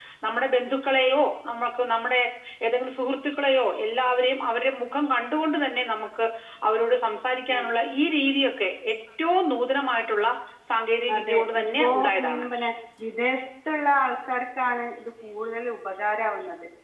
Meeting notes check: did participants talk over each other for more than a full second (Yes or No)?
Yes